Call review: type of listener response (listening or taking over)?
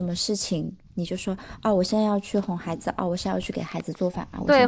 taking over